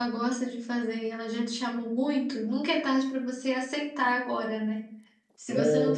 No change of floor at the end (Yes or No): Yes